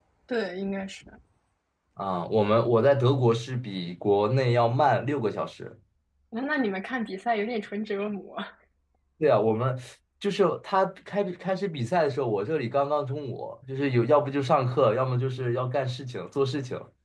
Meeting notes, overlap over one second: none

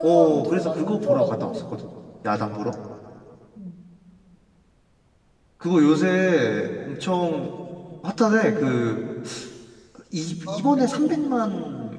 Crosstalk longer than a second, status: present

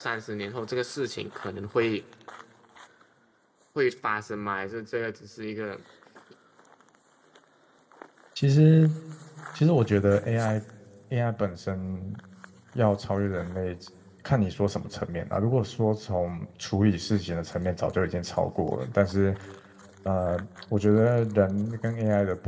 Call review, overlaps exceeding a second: none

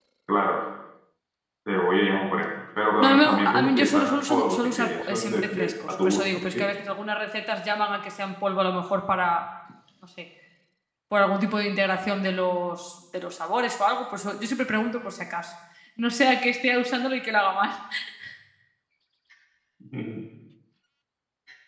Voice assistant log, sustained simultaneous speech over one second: present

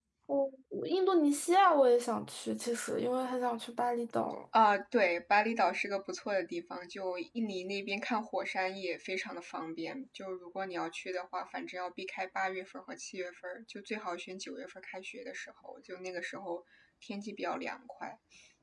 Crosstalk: none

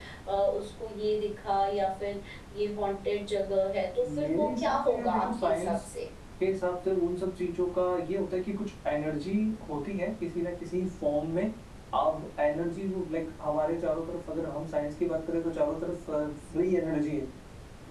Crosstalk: present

